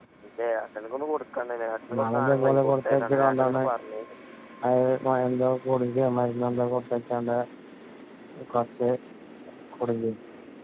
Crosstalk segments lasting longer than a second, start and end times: 1.9-3.6

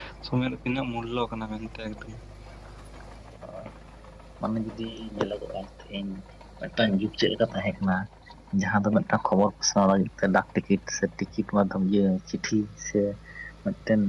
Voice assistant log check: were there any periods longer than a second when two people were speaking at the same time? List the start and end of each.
none

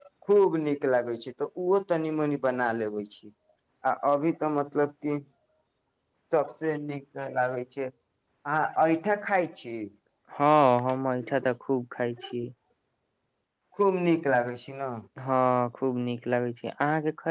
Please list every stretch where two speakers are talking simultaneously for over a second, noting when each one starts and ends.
none

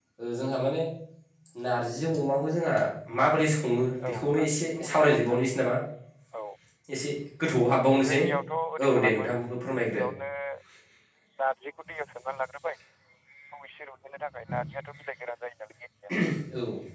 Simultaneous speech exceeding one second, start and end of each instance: 4.1-5.4

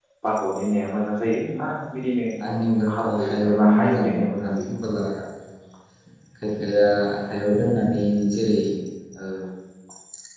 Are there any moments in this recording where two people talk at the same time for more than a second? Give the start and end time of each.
3.0-4.7

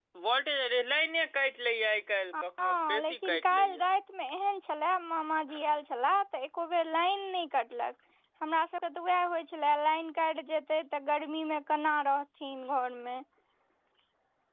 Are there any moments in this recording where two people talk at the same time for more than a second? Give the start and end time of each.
2.4-3.8

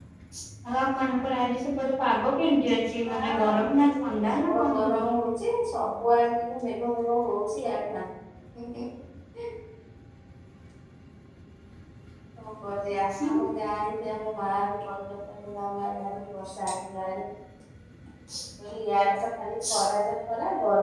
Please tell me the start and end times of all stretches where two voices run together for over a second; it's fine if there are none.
3.0-5.2

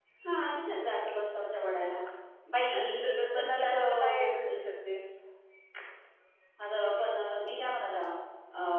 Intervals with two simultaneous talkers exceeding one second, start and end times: 2.7-4.2

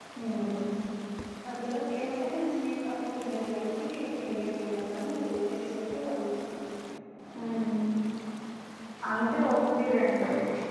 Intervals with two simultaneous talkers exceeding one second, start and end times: none

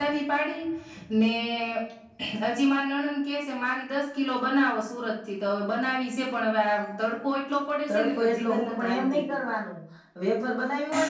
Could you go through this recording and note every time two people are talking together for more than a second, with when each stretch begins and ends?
7.9-9.2

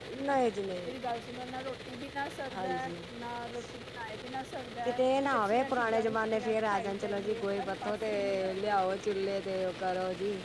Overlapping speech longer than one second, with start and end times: 5.3-9.1

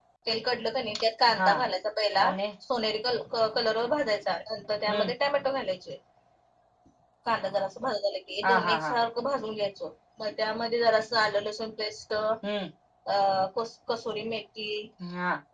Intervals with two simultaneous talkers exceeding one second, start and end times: none

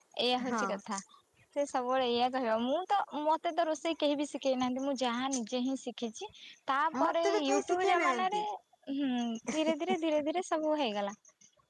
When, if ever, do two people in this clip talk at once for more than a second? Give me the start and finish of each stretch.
7.0-8.4

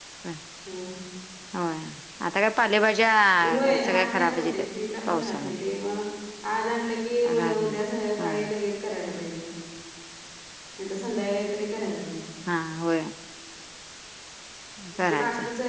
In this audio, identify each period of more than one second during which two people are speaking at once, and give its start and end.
3.4-4.6

